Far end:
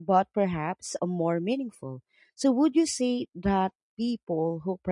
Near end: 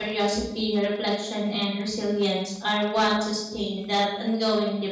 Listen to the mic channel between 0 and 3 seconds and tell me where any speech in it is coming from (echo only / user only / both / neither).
user only